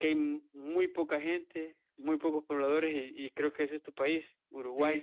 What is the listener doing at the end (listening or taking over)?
taking over